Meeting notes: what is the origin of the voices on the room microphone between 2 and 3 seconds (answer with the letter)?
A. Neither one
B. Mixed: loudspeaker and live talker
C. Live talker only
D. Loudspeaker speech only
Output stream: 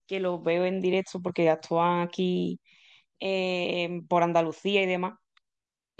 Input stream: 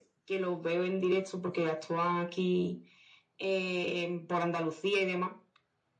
D